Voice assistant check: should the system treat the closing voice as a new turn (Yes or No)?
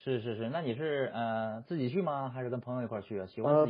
Yes